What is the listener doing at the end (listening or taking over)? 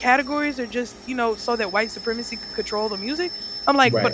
listening